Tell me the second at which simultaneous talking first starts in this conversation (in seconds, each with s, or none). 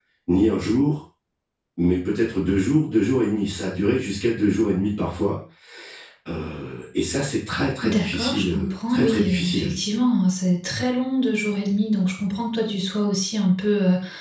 7.8 s